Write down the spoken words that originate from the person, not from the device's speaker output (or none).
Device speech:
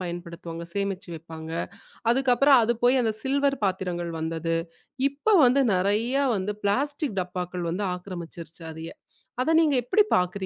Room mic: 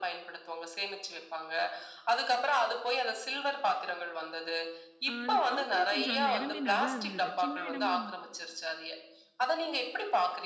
அ அது பார்க்கவே கொஞ்சம் அந்த இடமே நல்லா இருந்தது. சின்ன இடமா இரு